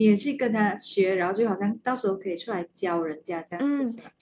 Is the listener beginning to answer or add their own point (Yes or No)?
Yes